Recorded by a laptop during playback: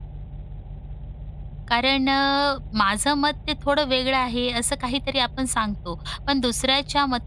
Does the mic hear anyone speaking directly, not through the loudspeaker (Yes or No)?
Yes